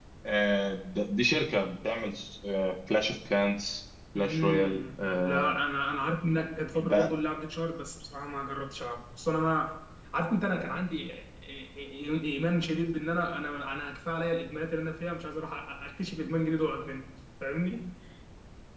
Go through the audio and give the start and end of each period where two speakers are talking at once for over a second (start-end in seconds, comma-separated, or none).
4.2-5.6